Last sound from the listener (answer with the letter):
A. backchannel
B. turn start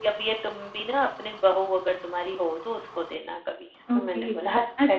B